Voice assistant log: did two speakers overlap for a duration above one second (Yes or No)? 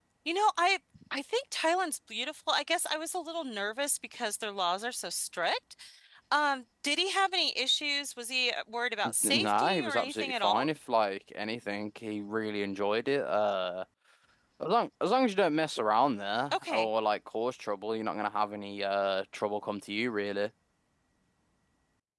Yes